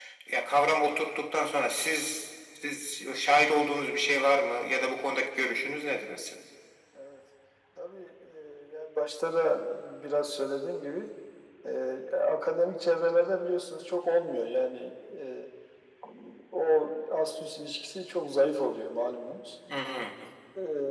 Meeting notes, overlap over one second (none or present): none